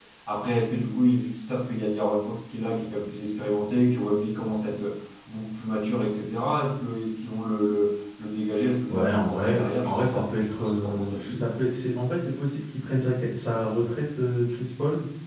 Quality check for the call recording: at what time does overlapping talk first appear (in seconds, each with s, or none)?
8.9 s